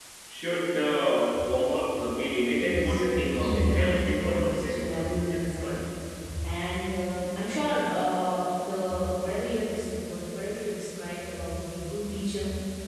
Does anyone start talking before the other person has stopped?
Yes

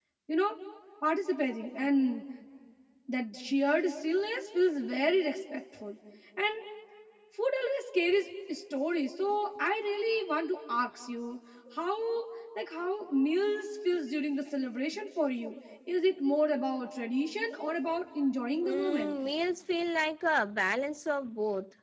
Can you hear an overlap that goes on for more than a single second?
No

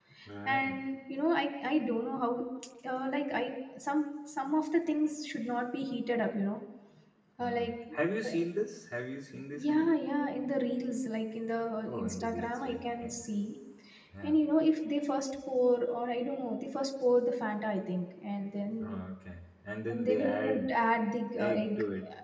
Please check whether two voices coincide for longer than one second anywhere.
Yes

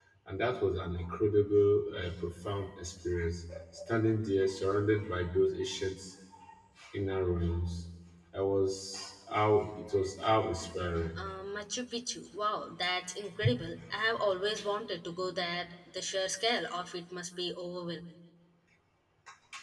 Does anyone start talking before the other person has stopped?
No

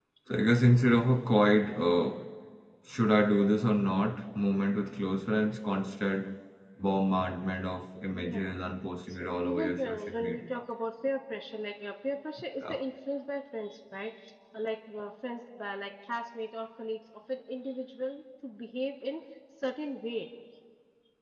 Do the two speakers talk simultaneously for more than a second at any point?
Yes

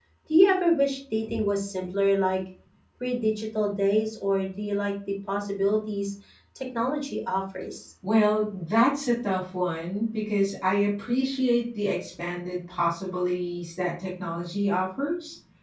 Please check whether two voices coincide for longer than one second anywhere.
No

